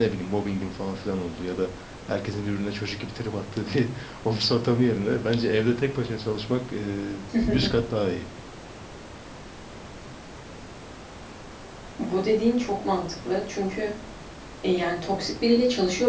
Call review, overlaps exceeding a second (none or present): none